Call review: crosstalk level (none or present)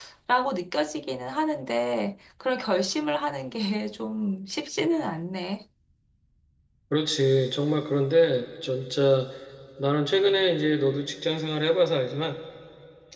none